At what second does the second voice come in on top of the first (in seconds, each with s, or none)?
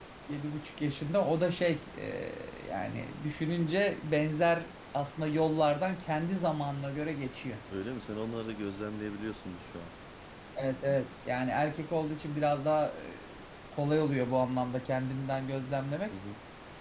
none